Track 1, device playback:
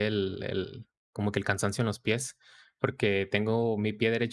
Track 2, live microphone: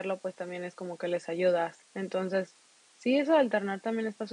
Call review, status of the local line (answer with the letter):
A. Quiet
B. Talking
B